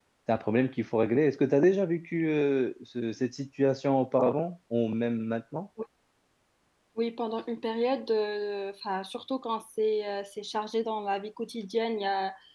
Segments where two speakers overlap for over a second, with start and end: none

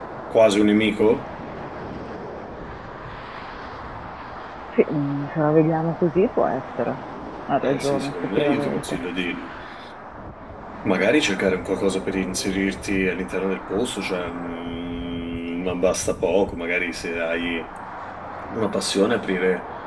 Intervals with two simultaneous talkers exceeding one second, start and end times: 7.6-9.0

